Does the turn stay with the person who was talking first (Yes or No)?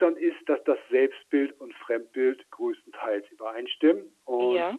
Yes